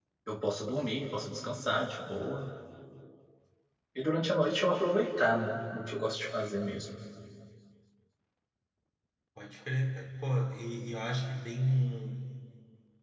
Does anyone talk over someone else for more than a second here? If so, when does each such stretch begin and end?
none

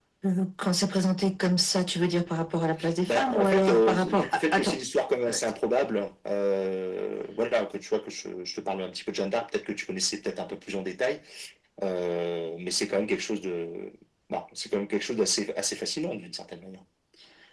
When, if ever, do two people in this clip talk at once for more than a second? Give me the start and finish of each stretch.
3.1-4.8

